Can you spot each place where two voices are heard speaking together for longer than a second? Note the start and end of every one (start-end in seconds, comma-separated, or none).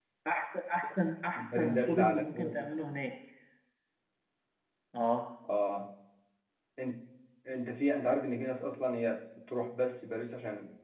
1.4-2.7